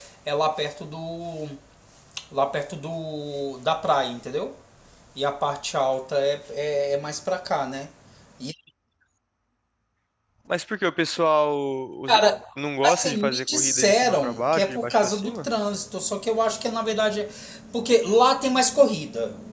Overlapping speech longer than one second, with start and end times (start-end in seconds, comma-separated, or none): 12.8-15.5